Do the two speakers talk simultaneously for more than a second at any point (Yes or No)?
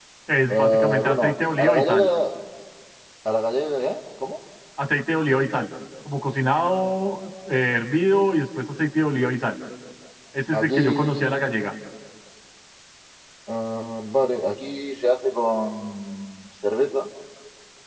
Yes